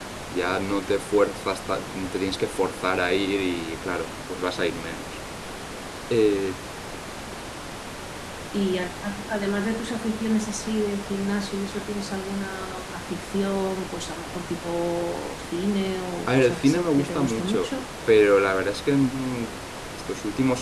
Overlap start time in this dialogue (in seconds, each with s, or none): 16.3 s